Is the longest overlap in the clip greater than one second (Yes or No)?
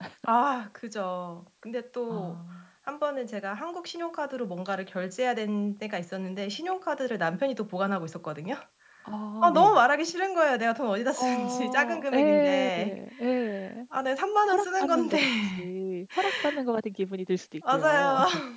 Yes